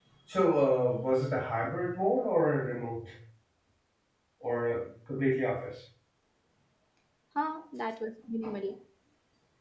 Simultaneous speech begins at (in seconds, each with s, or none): none